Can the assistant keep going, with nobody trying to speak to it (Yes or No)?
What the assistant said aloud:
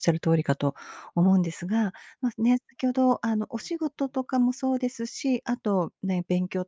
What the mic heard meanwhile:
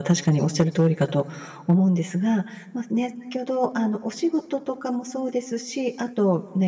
Yes